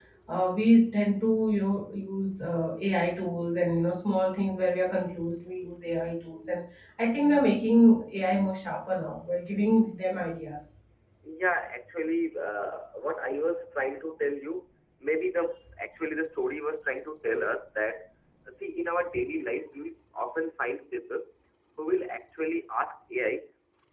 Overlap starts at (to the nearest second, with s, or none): none